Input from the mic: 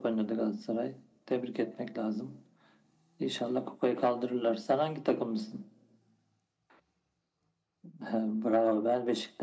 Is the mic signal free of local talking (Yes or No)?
Yes